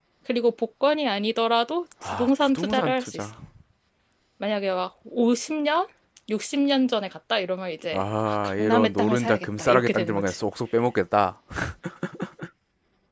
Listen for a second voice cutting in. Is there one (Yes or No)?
Yes